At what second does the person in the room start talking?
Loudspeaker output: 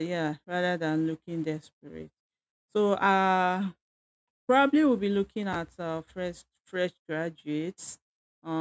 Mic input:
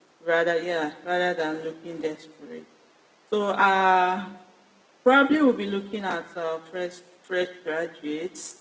none

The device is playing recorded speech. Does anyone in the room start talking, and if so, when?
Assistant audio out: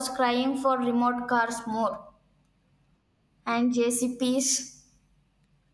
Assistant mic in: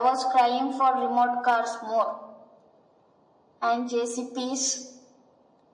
none

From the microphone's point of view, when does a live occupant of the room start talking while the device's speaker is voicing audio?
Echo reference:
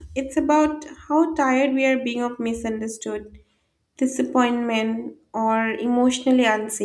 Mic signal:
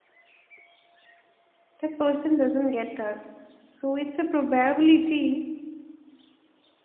2 s

